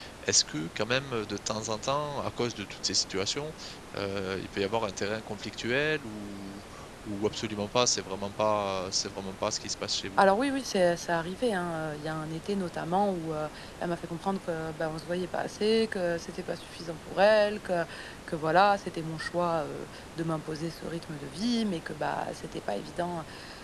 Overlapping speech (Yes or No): No